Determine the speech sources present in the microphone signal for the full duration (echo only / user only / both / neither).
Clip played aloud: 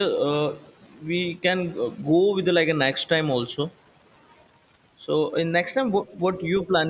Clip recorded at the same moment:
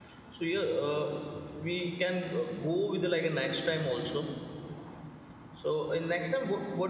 echo only